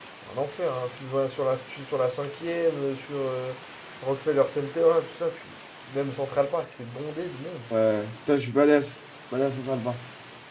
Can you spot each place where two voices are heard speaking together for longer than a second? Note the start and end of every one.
none

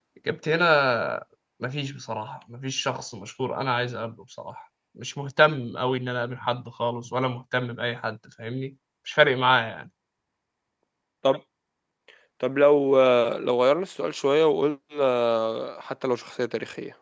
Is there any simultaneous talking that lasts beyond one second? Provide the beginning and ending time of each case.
none

